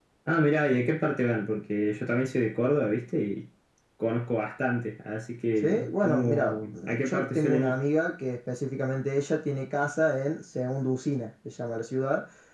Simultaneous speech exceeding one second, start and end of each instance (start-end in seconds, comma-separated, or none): 5.6-7.8